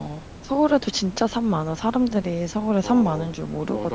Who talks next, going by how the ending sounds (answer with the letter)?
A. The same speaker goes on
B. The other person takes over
B